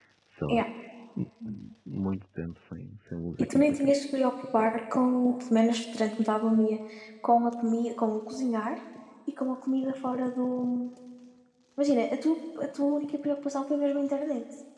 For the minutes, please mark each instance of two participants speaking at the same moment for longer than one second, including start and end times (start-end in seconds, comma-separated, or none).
none